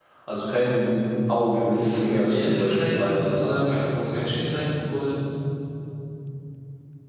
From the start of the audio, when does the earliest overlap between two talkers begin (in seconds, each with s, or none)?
1.7 s